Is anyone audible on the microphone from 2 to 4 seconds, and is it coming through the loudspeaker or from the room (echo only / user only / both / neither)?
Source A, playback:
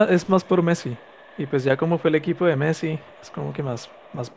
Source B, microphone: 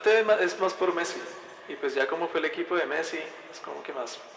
echo only